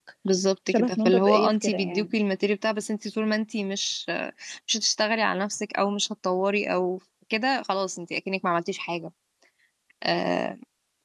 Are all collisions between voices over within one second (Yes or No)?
No